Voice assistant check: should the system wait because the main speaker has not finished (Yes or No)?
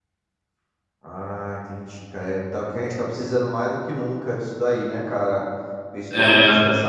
Yes